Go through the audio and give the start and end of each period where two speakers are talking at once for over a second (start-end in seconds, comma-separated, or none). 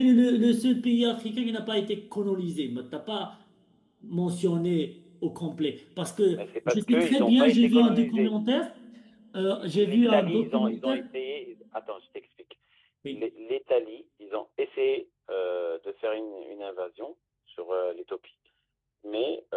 6.3-8.7, 9.6-11.0